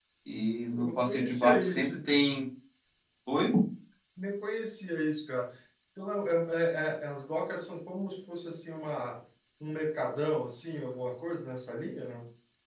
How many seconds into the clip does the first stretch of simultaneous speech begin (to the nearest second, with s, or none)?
1 s